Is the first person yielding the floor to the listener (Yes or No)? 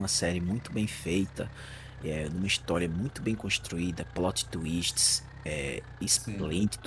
No